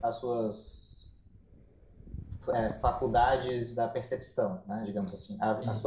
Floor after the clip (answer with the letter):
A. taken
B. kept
B